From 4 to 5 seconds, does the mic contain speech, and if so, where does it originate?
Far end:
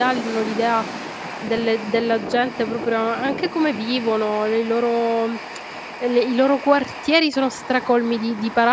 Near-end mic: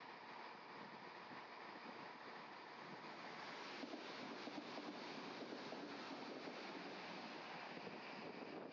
neither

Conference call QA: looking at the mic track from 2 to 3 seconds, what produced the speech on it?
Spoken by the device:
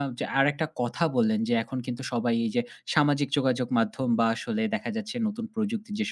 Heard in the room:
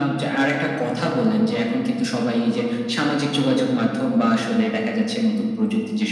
echo only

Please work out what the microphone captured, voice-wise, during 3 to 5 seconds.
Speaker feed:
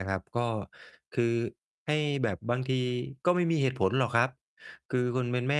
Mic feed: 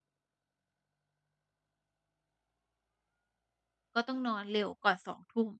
user only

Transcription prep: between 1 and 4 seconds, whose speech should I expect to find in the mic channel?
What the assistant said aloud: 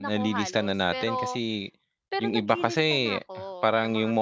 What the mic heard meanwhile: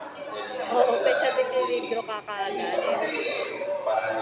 both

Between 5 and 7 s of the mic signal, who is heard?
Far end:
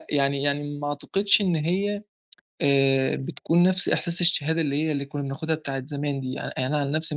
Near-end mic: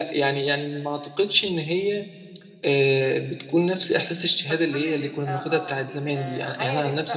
both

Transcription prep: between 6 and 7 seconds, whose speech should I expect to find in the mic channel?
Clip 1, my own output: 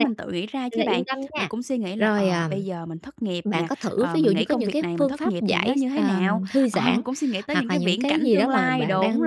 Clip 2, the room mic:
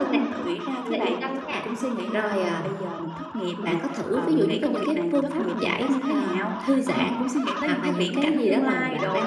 echo only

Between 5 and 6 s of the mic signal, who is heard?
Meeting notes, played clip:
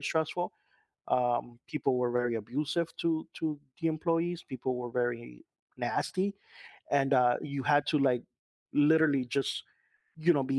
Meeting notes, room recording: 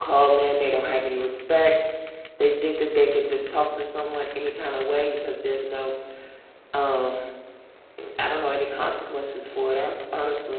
user only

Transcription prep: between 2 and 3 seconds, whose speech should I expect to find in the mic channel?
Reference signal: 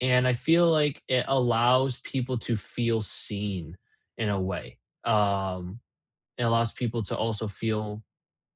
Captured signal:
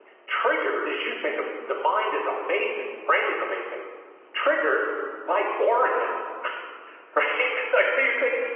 user only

